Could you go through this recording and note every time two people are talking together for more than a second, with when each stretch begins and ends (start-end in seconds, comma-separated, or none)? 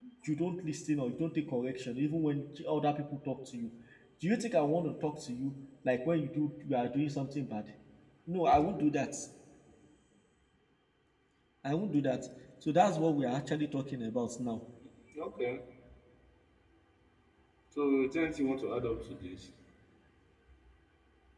none